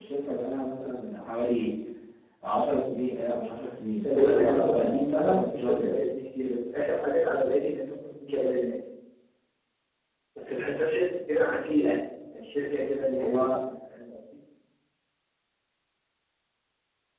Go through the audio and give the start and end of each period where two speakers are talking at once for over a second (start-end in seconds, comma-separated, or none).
4.0-6.0